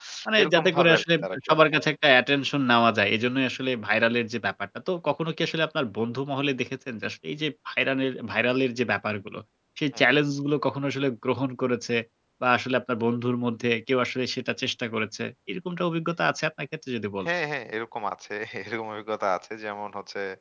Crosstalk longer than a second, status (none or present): present